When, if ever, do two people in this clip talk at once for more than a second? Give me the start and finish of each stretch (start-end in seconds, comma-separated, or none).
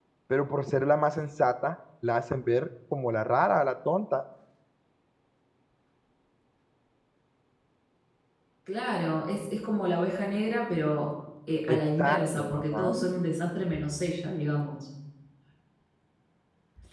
11.7-12.9